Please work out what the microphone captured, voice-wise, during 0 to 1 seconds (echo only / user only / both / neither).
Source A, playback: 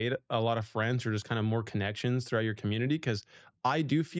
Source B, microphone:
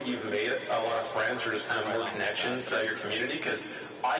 echo only